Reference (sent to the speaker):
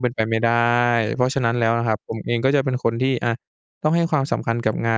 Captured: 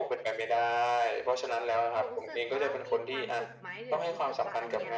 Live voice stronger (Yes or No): No